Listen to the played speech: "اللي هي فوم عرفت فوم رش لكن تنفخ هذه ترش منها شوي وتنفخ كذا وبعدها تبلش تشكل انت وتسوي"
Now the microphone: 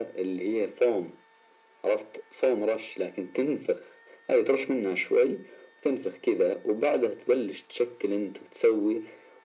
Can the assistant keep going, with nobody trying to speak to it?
Yes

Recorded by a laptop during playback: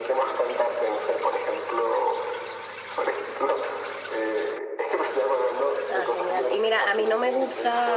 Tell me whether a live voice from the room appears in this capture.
Yes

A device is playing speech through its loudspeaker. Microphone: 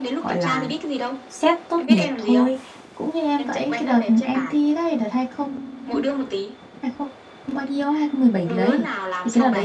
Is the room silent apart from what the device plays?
No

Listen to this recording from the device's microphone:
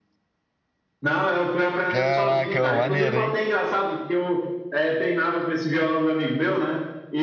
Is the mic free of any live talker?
No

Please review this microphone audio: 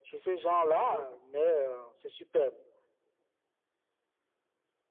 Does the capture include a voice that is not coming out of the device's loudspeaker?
Yes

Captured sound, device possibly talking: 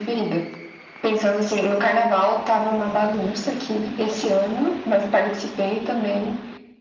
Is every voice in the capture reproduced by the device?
Yes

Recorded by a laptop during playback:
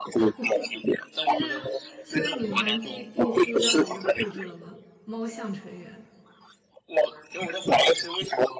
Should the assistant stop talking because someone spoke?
Yes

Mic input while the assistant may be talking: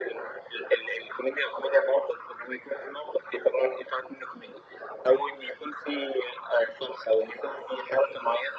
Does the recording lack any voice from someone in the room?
Yes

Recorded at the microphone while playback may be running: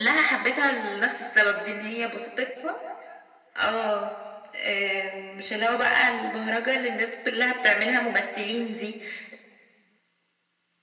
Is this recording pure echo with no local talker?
Yes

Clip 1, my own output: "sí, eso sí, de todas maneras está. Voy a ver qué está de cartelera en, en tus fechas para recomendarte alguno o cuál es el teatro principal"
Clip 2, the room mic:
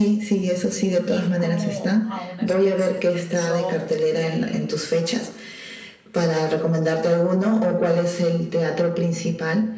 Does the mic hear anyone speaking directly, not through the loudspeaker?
Yes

